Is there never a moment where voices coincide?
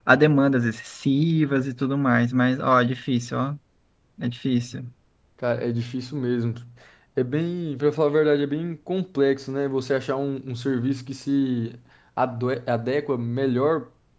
Yes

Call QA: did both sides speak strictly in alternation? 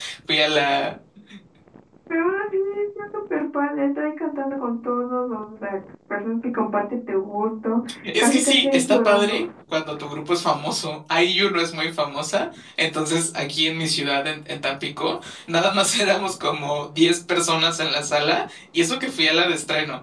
No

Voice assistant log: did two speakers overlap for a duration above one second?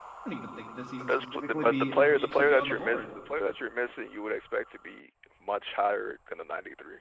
Yes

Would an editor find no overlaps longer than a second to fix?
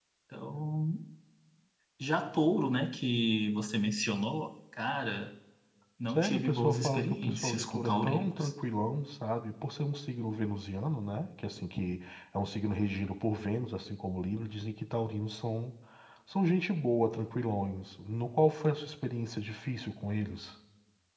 No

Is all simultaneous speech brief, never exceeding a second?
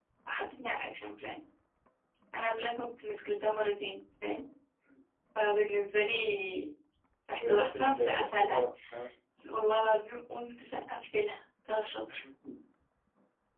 No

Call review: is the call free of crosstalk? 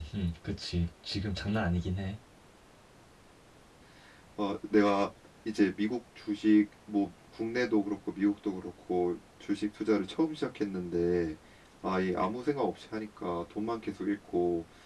Yes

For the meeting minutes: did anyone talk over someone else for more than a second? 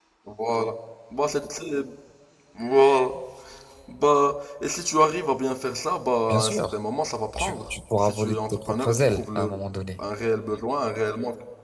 Yes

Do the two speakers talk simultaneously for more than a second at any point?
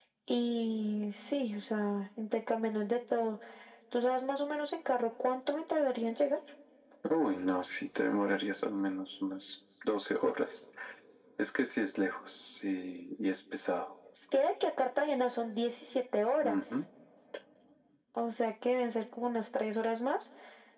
No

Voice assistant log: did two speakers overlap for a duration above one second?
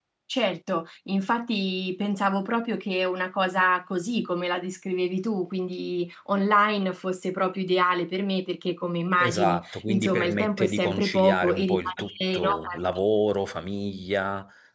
Yes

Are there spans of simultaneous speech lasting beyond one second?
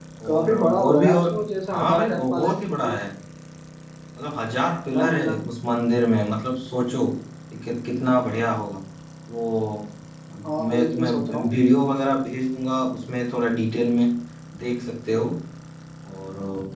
Yes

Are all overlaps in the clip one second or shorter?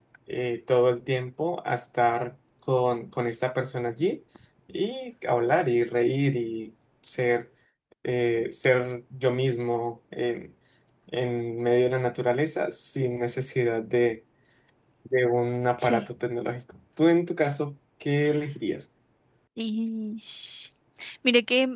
Yes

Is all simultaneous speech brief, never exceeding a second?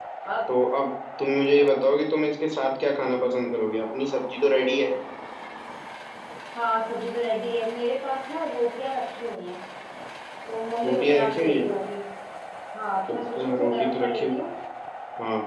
No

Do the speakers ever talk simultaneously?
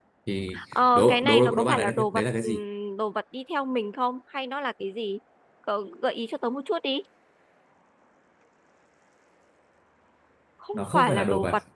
Yes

